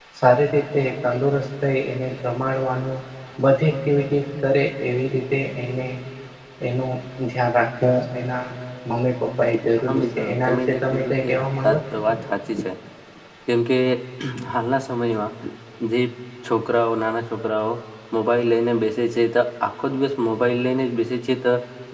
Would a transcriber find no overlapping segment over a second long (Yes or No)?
No